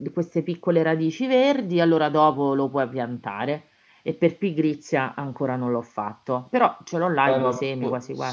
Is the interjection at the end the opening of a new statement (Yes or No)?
Yes